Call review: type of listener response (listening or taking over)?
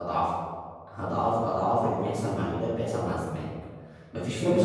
taking over